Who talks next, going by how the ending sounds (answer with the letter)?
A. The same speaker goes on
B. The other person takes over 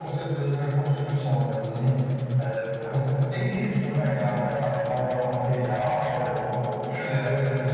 A